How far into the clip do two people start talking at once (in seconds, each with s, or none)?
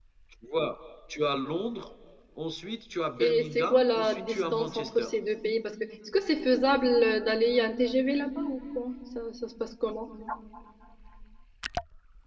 3.2 s